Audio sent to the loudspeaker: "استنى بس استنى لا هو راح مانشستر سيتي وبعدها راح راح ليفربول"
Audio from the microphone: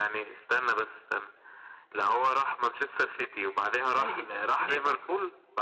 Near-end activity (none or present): present